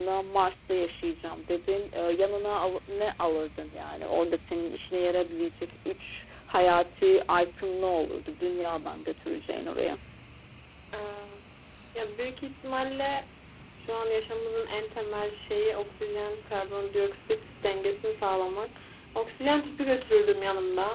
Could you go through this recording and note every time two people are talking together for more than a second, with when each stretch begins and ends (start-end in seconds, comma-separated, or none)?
none